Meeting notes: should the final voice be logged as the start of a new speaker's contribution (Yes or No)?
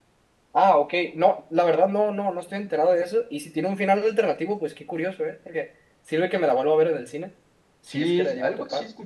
Yes